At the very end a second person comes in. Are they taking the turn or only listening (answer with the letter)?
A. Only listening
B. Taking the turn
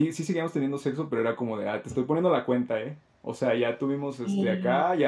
A